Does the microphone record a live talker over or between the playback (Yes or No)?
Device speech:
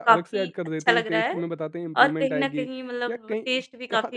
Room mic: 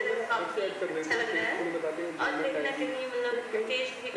No